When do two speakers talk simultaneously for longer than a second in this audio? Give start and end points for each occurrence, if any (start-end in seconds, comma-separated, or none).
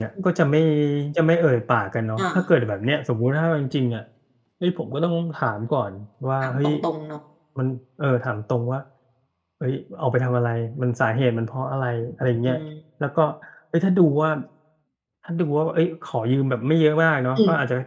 none